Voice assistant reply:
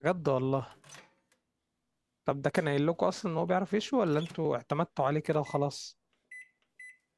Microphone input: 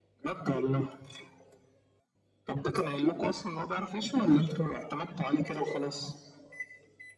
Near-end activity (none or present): none